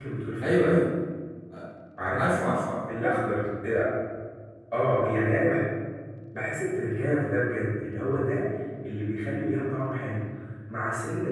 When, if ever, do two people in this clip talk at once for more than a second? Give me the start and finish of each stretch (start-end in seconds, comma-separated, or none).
none